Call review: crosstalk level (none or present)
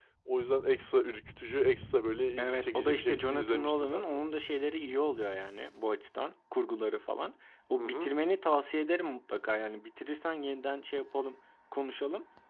present